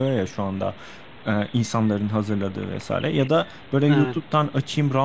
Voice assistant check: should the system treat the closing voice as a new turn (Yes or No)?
No